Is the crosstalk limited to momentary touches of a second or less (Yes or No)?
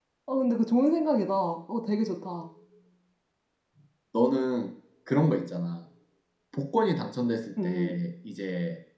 Yes